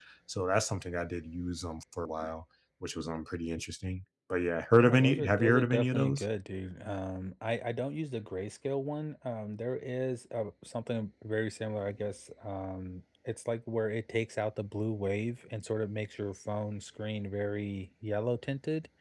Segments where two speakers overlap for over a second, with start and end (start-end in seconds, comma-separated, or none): 4.7-6.2